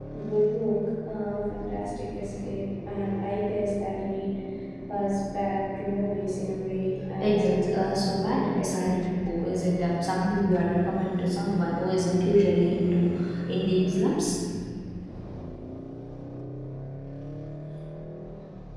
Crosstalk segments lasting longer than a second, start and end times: 7.2-9.1

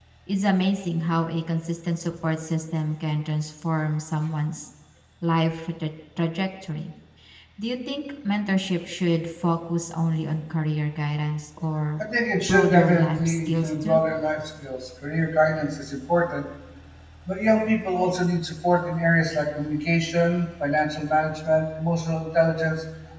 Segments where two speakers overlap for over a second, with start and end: 12.4-14.0

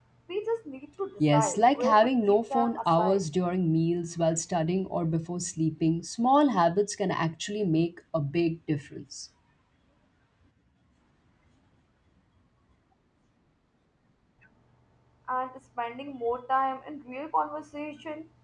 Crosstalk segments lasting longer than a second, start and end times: 1.3-3.2

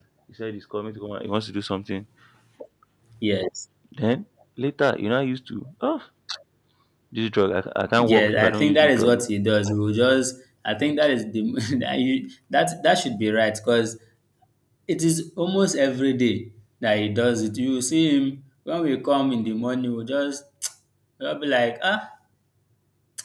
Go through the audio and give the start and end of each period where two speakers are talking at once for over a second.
8.0-9.2

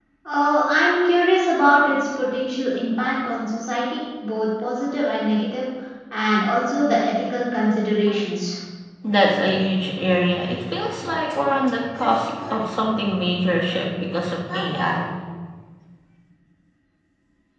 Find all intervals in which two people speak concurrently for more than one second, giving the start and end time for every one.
none

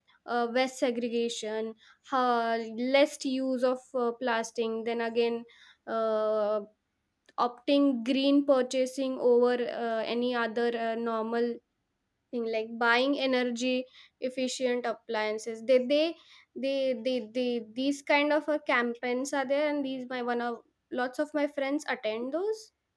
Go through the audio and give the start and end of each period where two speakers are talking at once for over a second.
none

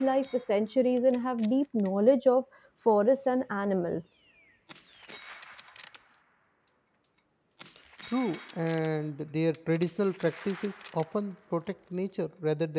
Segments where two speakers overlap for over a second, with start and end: none

